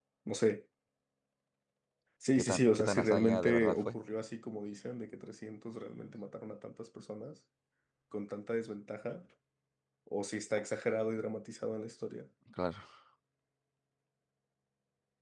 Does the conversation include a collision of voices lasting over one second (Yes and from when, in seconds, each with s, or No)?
Yes, from 2.4 s